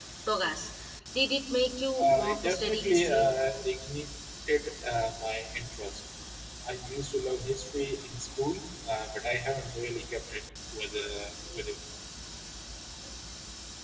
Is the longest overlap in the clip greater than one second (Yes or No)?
Yes